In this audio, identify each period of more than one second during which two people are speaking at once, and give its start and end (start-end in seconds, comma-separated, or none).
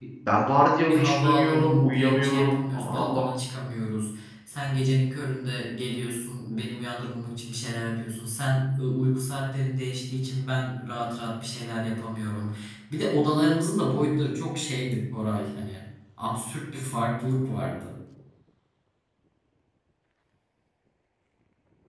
0.9-3.2